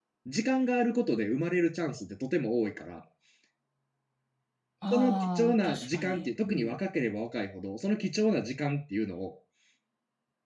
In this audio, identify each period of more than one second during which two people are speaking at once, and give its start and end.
4.9-6.8

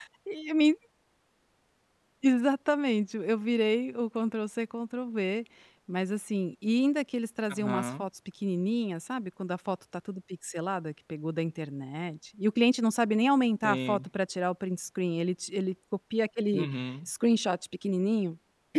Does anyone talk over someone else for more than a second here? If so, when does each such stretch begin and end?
none

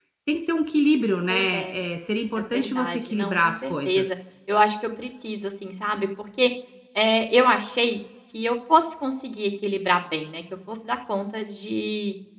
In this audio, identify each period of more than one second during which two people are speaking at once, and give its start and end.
2.5-4.1

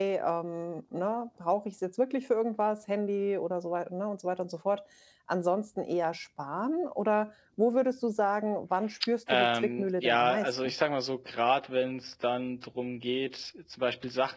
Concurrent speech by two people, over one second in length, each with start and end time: 9.3-10.7

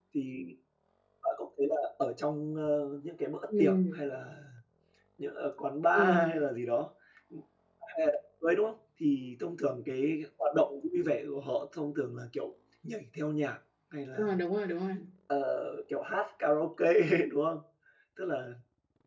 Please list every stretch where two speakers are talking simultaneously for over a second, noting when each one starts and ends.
none

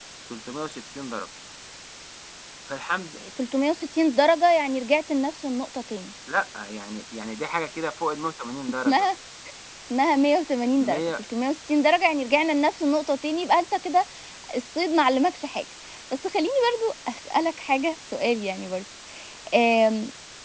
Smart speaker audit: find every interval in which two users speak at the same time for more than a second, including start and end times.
none

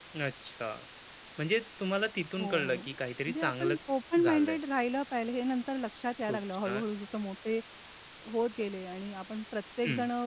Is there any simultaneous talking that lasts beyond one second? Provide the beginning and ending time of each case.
3.2-4.6

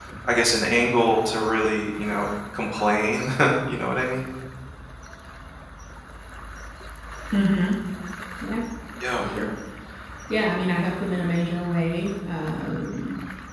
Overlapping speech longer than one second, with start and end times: none

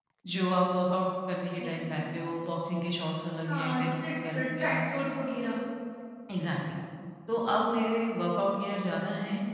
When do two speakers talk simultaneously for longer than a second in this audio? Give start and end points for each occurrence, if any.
3.5-4.8

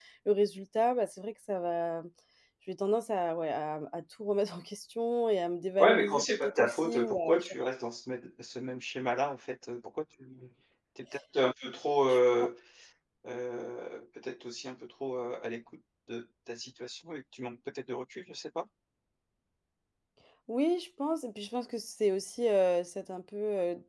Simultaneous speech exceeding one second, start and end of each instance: 5.8-7.5

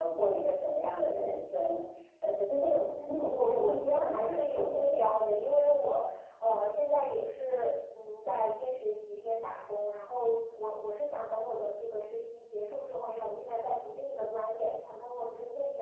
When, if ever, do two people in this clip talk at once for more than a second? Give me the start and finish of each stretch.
3.1-5.0

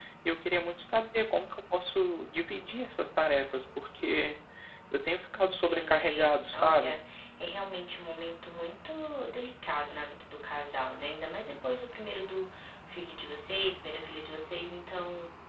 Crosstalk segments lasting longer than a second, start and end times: 5.3-7.0

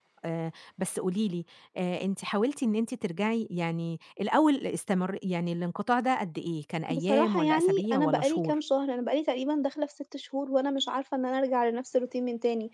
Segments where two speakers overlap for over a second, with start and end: 6.9-8.5

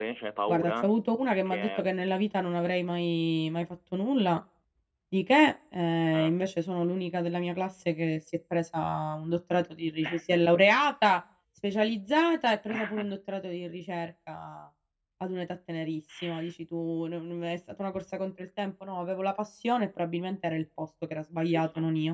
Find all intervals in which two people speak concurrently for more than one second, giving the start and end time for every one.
none

